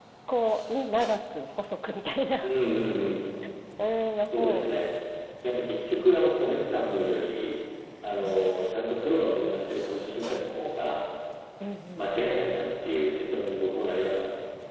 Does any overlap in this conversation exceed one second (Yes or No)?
No